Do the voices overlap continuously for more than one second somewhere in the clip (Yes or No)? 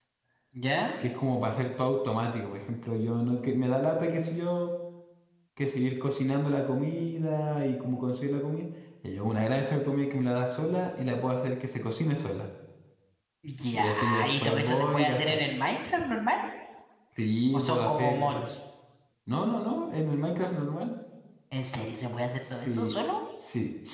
Yes